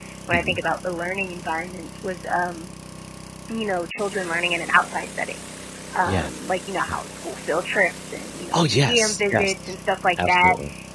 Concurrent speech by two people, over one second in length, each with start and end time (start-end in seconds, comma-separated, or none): 8.5-9.7